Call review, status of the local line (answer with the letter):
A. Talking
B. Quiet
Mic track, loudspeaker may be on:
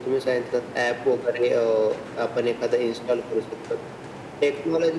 B